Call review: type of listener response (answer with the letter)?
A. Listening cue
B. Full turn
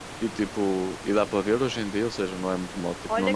B